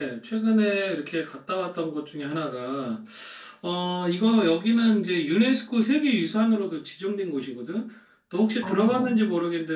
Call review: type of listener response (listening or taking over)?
listening